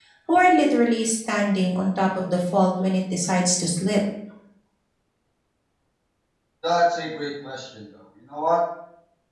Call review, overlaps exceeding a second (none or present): none